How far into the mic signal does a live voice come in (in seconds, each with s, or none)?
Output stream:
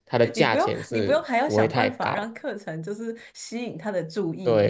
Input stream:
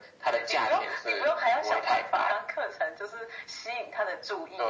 none